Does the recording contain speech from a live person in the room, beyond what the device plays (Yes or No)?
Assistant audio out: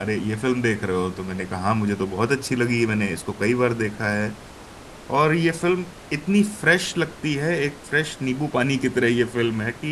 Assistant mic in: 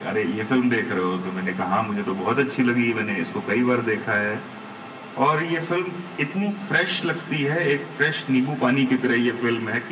No